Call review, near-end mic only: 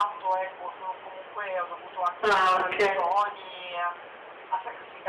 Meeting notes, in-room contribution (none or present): present